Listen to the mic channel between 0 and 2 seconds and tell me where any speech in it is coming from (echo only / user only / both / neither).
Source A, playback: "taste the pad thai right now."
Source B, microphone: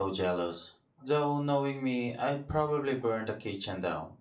user only